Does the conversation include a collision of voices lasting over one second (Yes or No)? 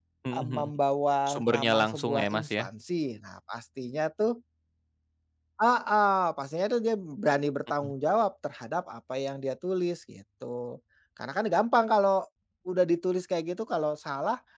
Yes